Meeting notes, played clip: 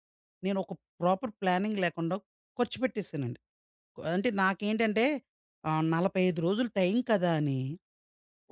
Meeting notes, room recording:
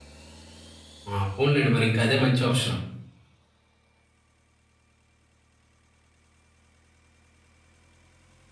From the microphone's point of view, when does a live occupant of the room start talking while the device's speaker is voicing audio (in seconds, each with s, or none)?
1.1 s